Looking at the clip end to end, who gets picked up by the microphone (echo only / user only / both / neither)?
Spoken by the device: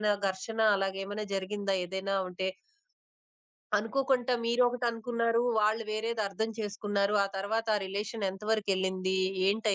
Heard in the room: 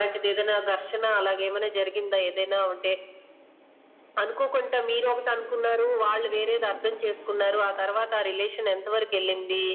echo only